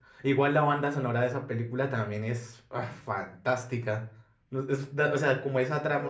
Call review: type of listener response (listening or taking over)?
taking over